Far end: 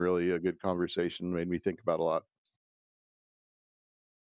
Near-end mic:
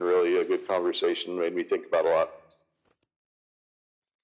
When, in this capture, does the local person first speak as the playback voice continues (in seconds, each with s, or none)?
none